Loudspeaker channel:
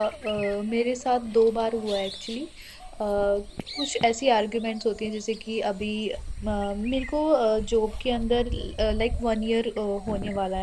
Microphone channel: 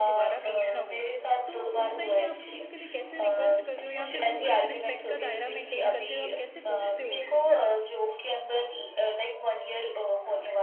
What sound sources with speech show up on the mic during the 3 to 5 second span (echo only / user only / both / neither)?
both